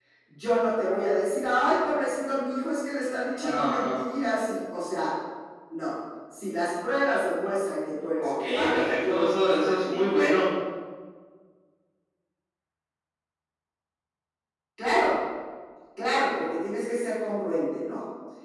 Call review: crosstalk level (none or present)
present